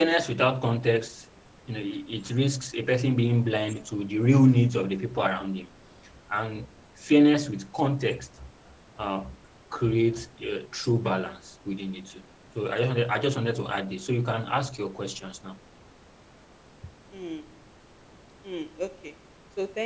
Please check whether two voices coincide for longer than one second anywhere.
No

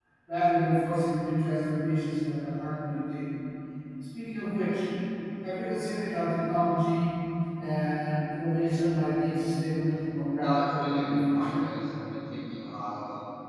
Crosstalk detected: Yes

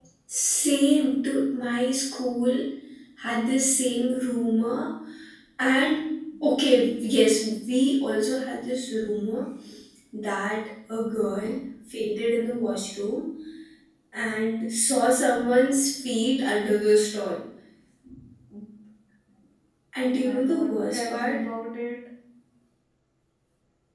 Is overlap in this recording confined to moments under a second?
No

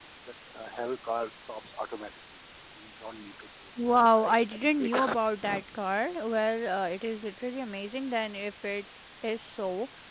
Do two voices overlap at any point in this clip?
Yes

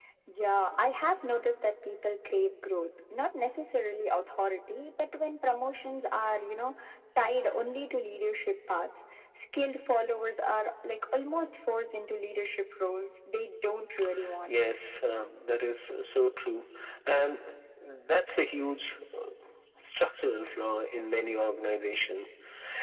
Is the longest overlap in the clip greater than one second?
No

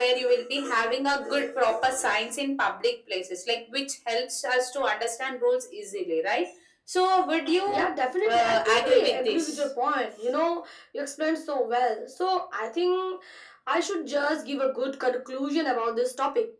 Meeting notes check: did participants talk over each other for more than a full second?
Yes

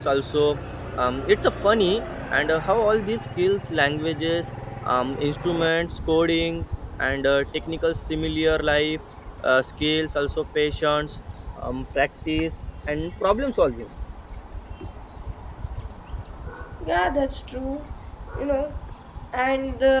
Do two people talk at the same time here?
No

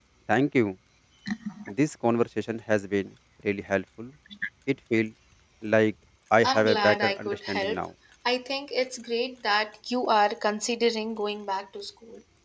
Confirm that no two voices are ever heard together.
No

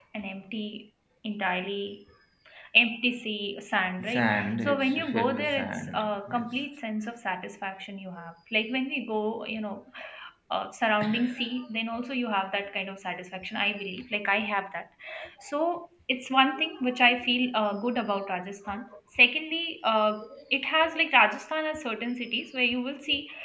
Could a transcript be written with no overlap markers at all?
No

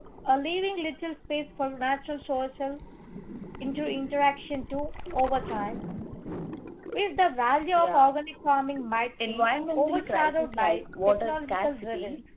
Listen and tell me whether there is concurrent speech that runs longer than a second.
Yes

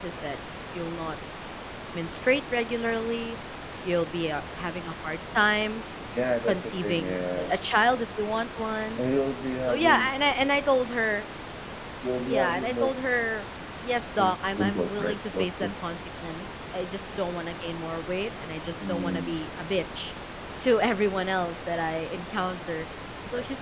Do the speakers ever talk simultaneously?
Yes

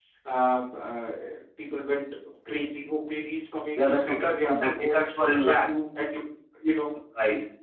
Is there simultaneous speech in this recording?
Yes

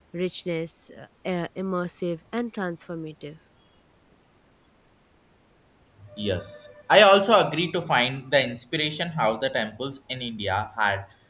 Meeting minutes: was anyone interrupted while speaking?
No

